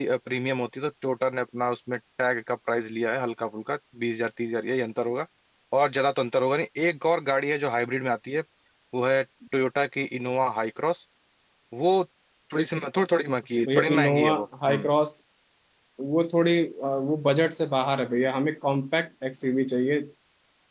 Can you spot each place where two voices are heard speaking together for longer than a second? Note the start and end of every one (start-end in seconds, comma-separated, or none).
13.7-14.9